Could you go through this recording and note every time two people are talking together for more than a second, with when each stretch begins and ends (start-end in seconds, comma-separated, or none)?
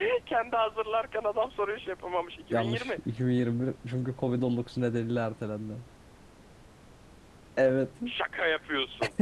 none